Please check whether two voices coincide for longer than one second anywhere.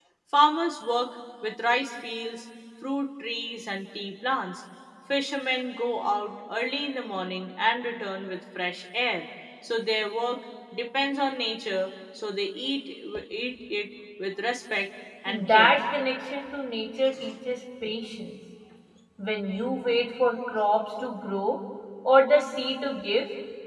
No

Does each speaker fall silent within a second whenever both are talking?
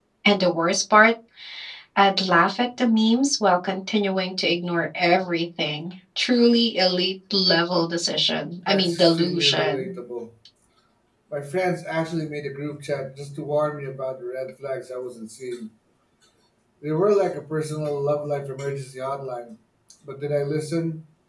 No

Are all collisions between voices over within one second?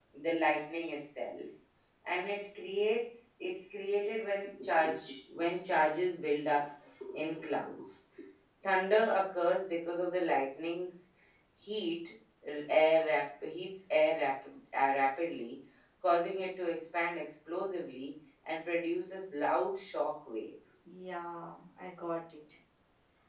Yes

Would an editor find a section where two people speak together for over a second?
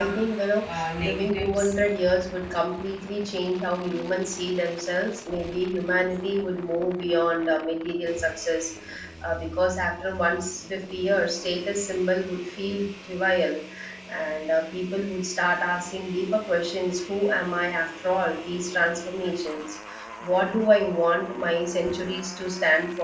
Yes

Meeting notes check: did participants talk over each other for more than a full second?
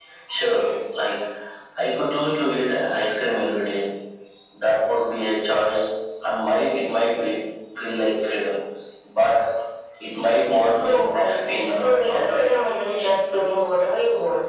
Yes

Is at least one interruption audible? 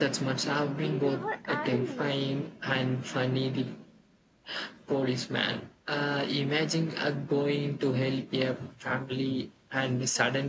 Yes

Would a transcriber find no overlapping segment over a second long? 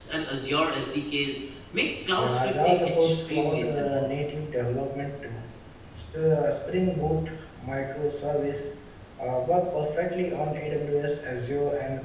No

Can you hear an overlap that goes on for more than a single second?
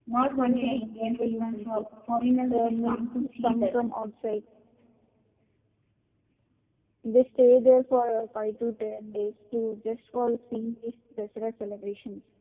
Yes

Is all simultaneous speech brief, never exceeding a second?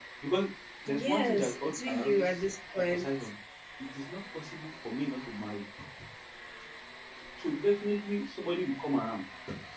No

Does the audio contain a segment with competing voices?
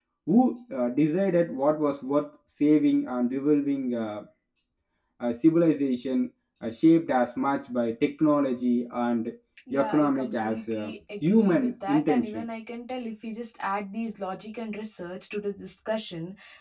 Yes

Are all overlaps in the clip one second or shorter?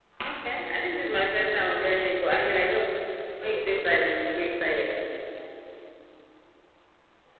No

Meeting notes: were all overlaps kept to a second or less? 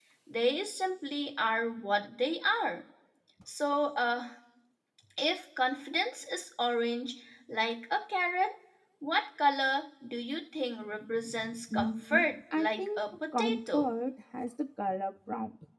No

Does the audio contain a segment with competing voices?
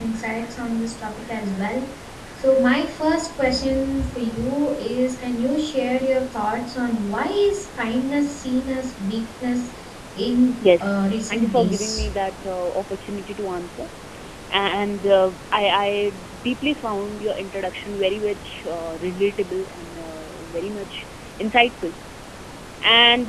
Yes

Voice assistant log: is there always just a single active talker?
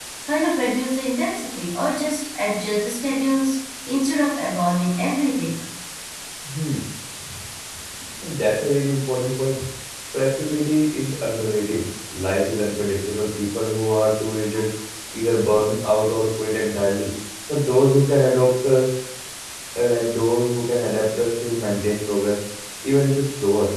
Yes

